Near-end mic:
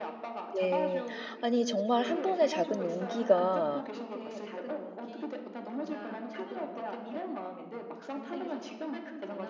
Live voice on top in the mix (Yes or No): Yes